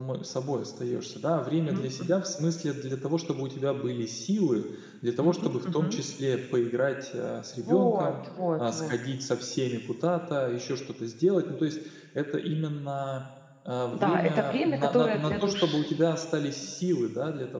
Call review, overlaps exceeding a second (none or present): present